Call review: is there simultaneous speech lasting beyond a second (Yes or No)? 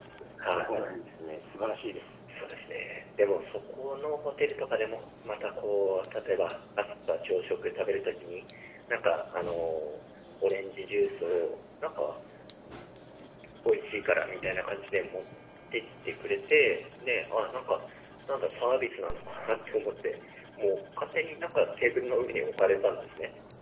No